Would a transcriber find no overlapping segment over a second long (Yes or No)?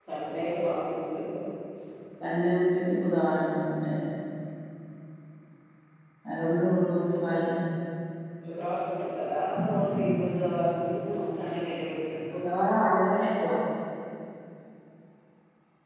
Yes